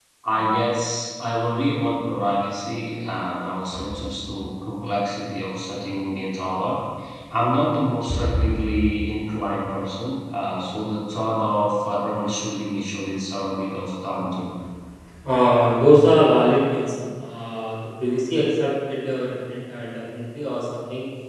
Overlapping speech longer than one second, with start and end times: none

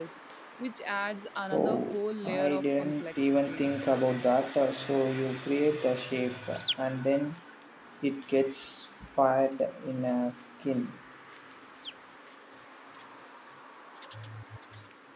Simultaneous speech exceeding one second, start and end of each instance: 1.5-3.7

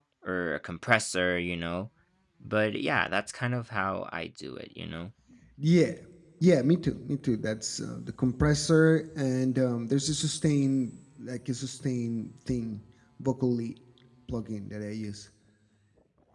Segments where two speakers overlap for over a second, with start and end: none

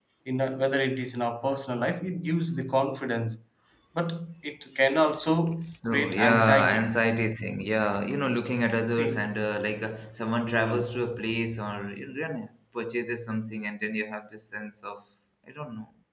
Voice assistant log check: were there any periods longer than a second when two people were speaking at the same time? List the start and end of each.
5.7-6.9

